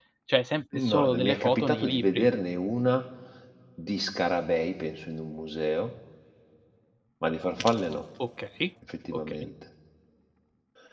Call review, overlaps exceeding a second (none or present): present